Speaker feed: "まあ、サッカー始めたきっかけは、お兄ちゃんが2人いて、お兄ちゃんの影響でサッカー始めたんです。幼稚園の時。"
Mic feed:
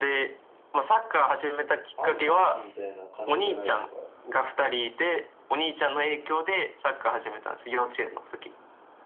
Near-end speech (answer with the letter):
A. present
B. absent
A